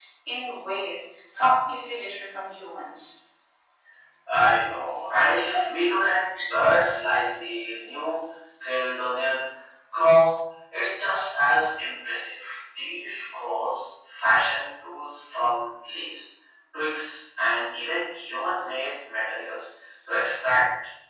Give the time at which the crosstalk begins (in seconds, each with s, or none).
none